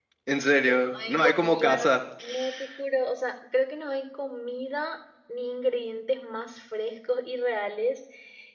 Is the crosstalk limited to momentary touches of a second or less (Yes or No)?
No